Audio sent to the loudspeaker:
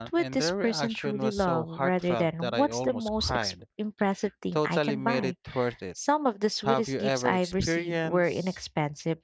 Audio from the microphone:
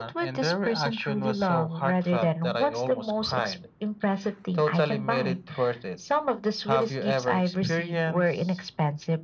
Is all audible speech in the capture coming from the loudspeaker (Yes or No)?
Yes